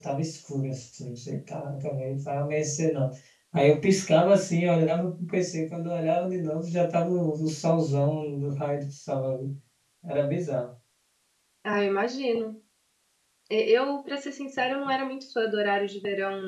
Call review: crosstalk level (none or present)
none